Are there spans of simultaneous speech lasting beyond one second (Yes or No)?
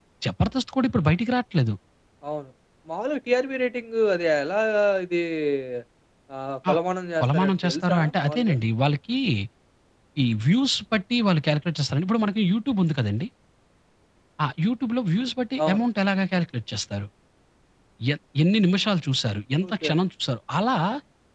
Yes